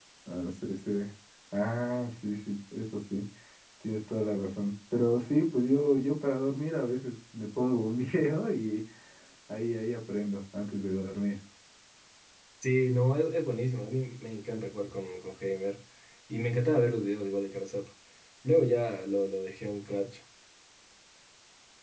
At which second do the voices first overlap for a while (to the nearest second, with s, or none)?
none